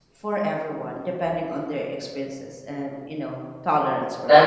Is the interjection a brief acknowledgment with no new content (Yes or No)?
No